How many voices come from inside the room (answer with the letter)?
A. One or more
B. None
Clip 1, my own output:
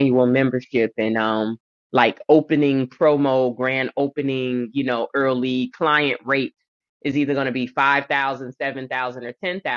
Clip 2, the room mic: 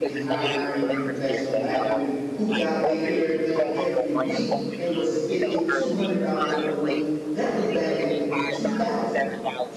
A